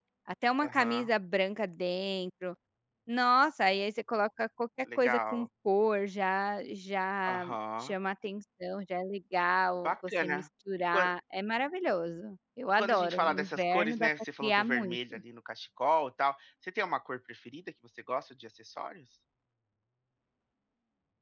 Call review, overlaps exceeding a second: present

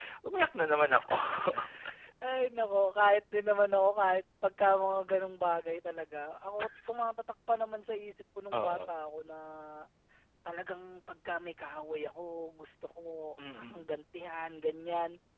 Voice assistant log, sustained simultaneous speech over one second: none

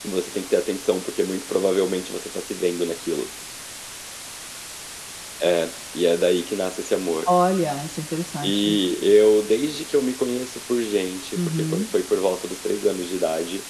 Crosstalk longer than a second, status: none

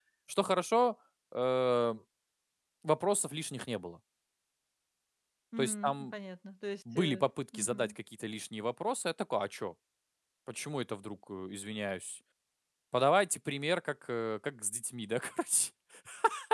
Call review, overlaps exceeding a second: none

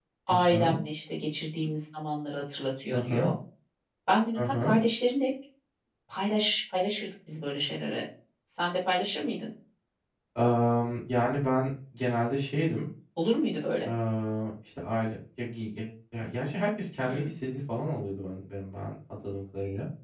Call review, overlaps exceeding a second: none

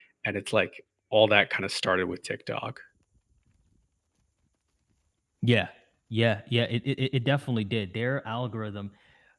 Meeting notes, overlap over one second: none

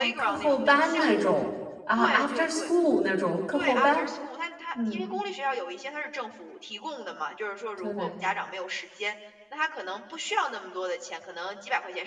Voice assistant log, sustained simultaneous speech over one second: present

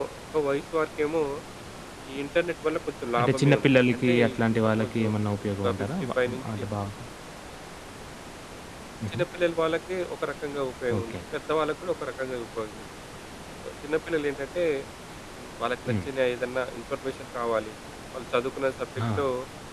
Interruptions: present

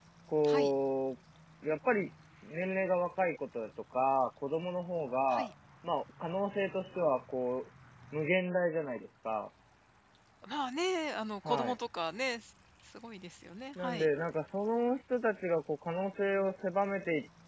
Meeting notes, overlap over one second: none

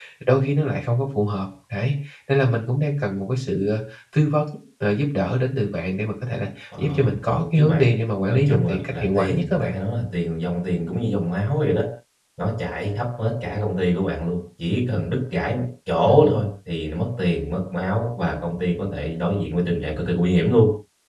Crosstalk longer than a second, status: present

